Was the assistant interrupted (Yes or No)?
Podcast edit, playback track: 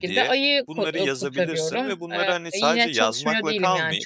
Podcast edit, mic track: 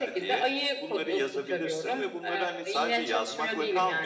No